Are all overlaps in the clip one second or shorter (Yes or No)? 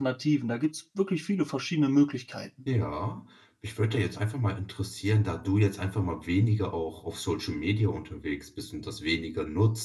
Yes